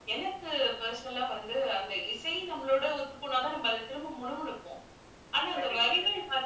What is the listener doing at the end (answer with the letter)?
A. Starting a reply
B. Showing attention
B